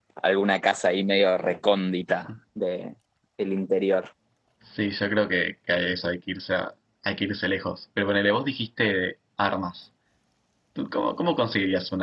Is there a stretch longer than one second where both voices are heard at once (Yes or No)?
No